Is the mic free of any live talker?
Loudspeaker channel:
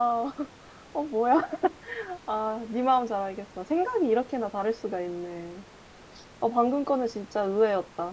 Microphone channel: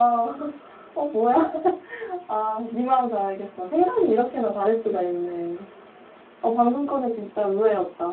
Yes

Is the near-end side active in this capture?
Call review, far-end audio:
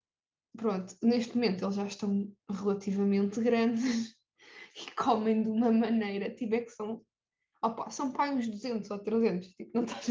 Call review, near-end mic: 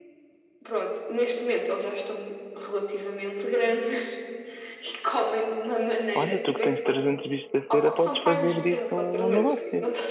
Yes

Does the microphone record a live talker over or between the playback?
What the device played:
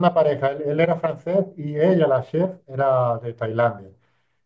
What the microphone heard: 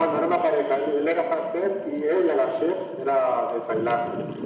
No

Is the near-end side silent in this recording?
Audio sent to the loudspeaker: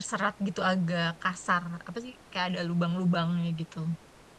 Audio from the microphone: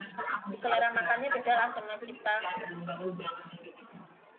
No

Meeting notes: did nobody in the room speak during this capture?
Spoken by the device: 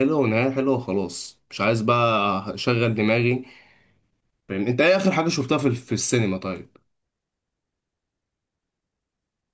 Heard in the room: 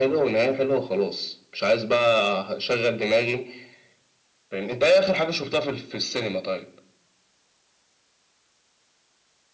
Yes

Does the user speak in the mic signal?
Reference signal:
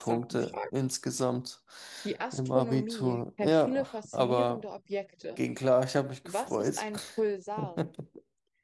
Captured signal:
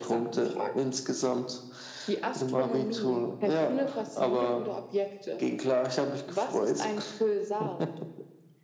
No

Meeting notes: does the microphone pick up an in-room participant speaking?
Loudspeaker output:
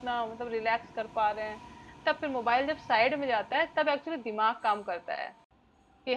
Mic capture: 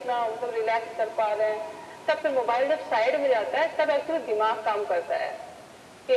No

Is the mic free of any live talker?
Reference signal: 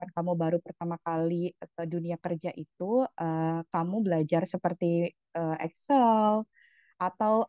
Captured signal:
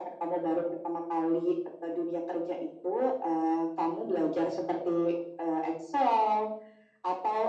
Yes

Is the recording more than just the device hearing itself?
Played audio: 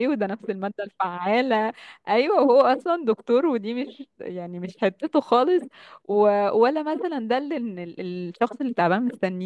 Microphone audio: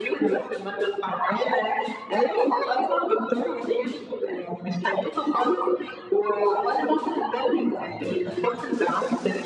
Yes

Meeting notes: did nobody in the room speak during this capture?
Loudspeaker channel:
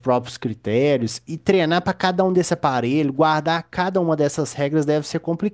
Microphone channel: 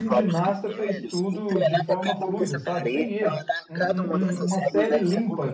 No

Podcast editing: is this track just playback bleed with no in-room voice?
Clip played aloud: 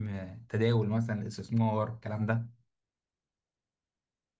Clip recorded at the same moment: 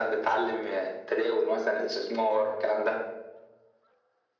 Yes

